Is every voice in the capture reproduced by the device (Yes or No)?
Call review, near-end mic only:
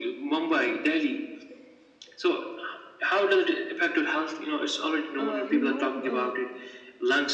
No